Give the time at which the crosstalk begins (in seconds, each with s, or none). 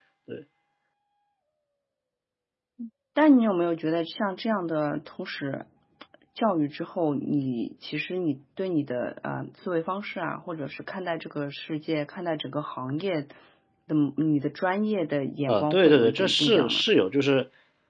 15.5 s